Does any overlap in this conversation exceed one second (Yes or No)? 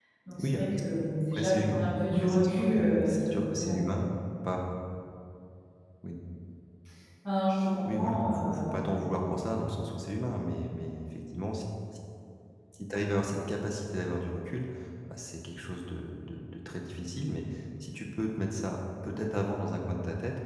Yes